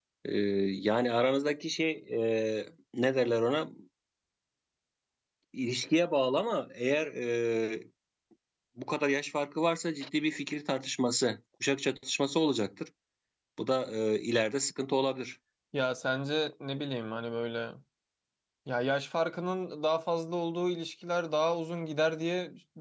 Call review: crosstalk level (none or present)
none